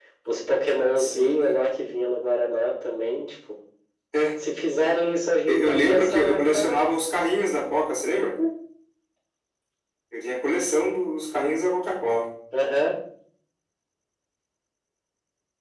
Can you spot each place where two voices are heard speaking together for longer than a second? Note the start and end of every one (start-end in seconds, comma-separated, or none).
5.5-6.8